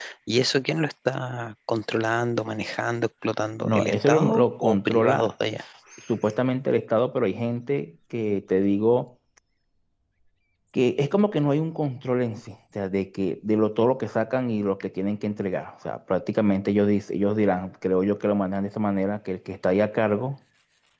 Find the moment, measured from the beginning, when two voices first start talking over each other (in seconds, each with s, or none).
3.6 s